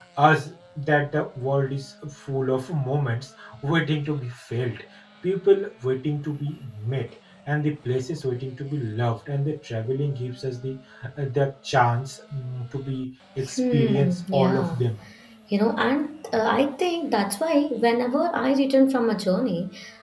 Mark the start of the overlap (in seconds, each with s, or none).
13.5 s